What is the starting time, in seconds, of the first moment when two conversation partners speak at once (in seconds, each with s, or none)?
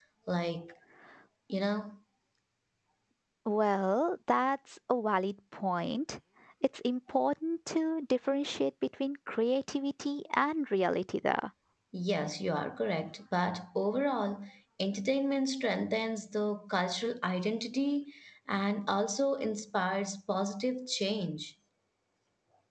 none